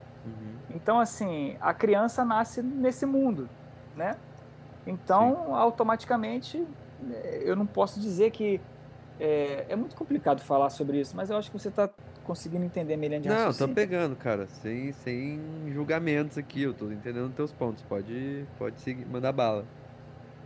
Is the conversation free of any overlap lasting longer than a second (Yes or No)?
Yes